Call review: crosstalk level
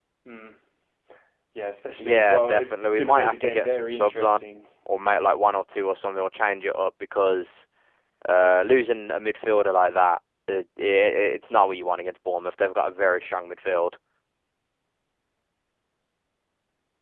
present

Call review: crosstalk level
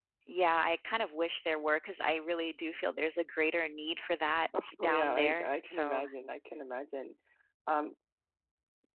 present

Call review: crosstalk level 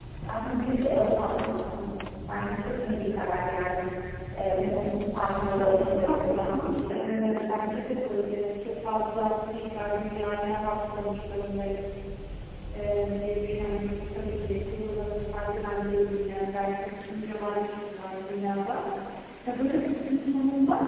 present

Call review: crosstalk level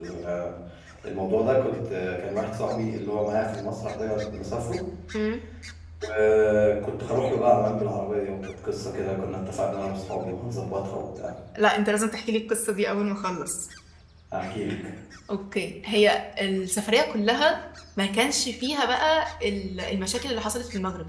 none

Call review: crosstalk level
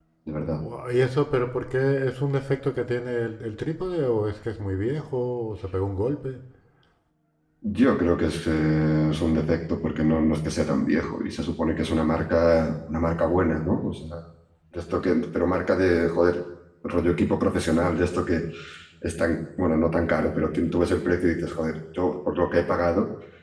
none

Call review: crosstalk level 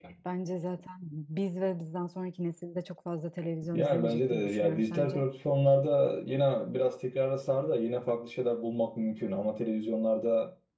present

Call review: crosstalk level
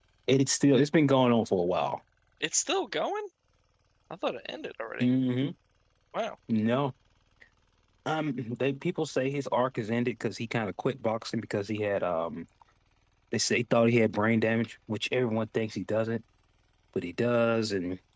none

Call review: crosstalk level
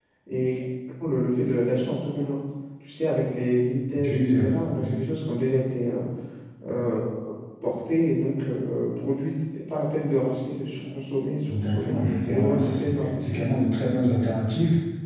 present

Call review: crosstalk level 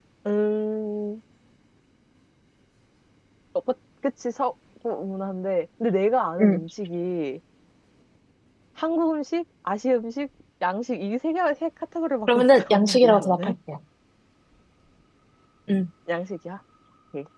present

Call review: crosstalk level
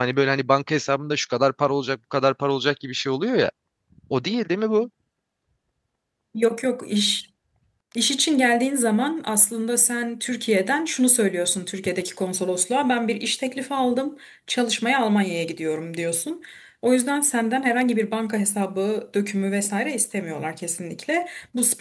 none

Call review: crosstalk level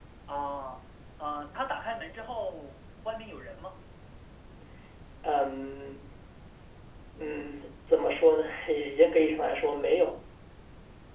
none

